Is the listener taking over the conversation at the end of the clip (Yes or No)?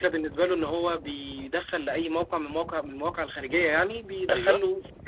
No